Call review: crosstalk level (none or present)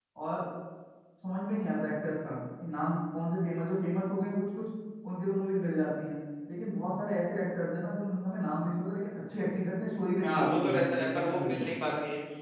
present